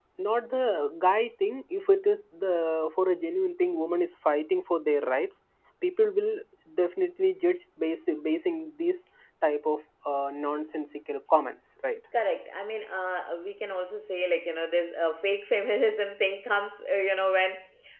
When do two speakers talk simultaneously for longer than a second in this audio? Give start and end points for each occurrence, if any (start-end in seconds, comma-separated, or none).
none